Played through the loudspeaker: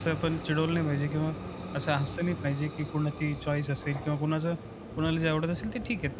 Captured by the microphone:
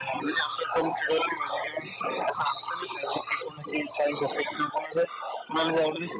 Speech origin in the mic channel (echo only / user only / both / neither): echo only